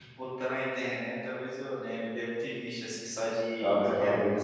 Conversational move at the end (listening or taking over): taking over